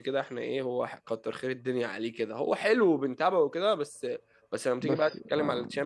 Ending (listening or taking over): listening